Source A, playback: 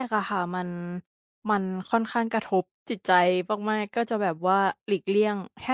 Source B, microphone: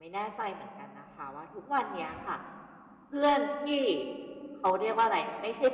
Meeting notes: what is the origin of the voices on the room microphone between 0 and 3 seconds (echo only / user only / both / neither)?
user only